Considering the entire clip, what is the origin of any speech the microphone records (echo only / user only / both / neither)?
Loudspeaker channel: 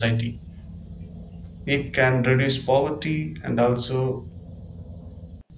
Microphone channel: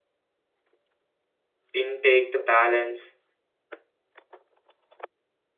user only